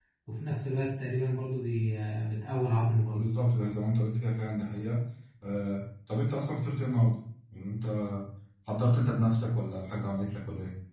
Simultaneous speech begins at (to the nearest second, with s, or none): none